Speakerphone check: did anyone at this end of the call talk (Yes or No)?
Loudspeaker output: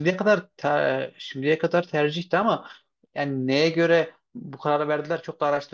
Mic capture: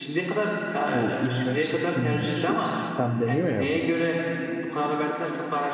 Yes